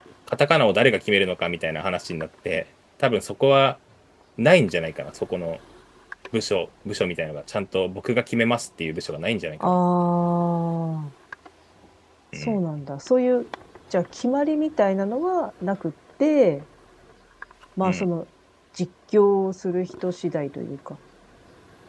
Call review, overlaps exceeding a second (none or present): none